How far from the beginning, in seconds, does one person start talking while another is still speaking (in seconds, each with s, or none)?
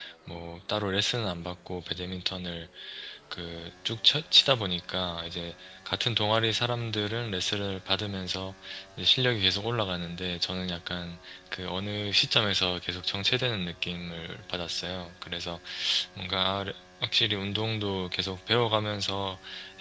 none